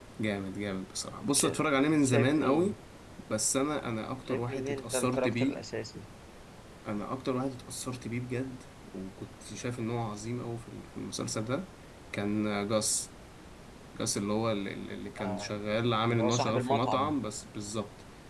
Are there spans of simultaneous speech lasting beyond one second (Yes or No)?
Yes